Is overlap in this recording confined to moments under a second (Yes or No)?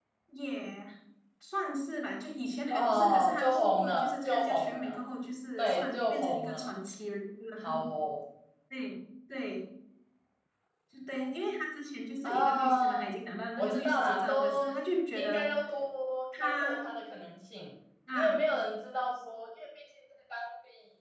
No